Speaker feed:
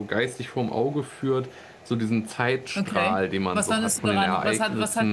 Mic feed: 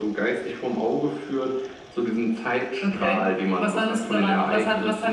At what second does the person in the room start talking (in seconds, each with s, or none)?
none